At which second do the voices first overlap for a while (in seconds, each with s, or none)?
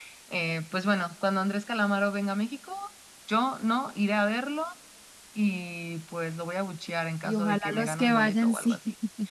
7.2 s